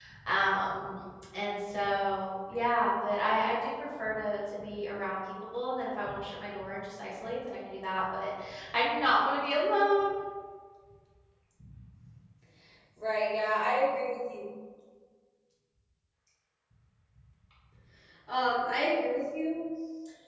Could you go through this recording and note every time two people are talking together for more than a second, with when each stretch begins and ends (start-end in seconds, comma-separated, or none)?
none